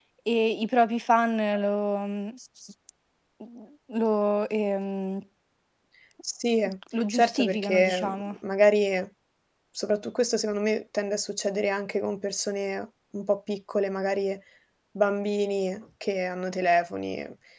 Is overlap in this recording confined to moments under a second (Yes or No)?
No